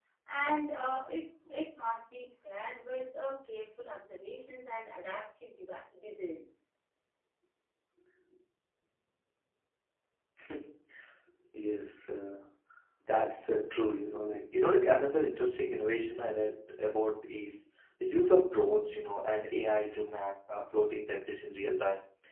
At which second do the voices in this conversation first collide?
none

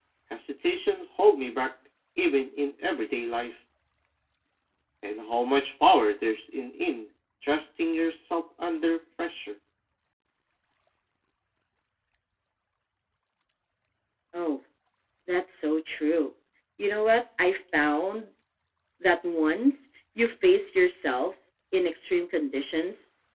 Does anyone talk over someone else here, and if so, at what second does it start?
none

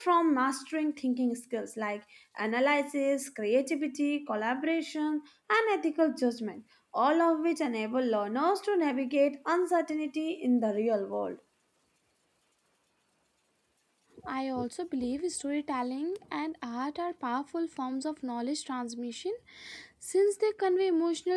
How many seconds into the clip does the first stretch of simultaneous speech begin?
none

